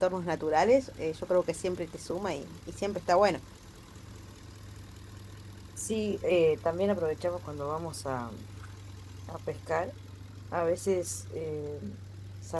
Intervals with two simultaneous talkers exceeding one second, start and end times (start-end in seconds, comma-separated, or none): none